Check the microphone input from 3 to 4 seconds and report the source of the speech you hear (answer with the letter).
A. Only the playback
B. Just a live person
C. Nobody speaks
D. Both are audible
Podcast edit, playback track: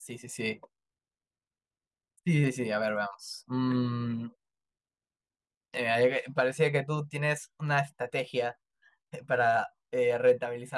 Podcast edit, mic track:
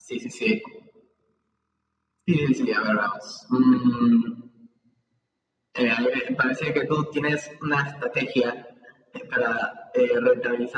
A